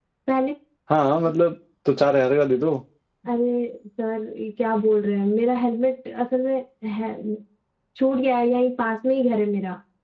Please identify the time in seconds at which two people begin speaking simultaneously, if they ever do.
none

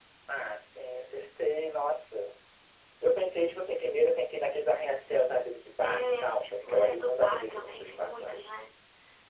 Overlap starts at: 5.8 s

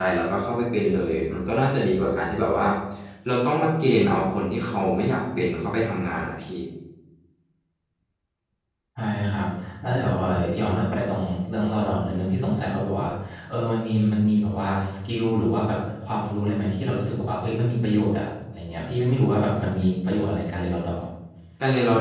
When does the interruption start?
none

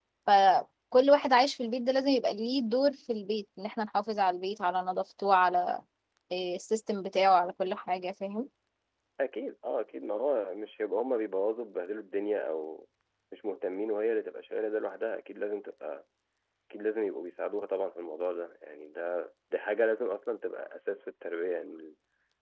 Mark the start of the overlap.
none

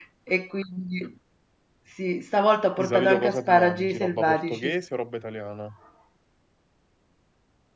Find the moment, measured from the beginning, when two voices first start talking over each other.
2.8 s

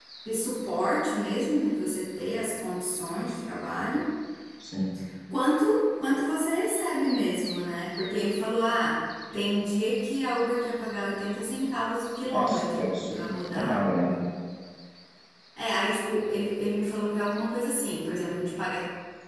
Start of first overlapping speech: 12.3 s

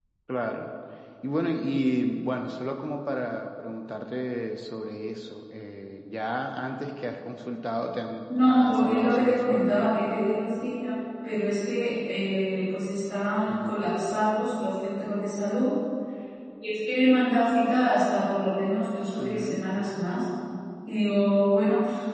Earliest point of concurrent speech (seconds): 8.4 s

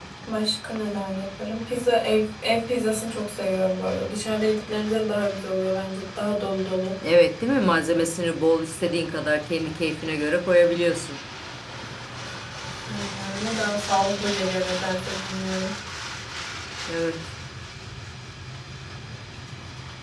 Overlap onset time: none

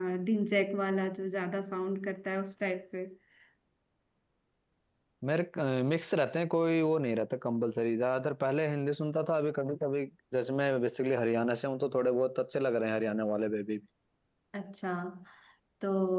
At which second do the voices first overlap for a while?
none

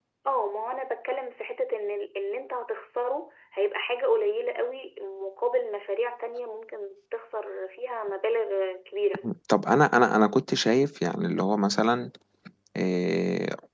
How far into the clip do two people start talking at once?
none

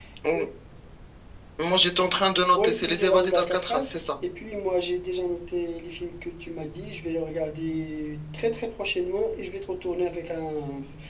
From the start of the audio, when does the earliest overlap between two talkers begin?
2.6 s

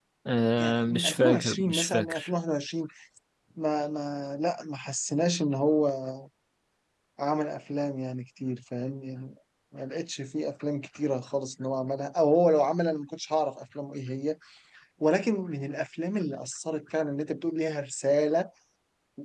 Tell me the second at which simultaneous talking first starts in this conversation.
0.6 s

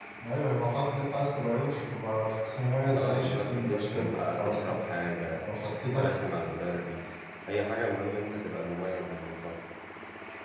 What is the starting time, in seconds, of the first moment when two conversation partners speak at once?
2.9 s

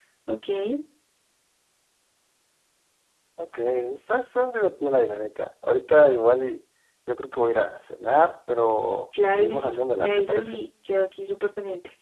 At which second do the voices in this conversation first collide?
9.1 s

